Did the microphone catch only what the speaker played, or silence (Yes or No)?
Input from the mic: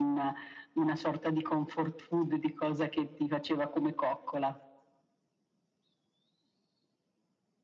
Yes